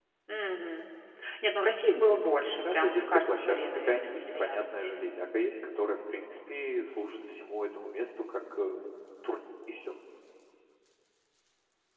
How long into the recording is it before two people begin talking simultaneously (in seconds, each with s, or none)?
2.6 s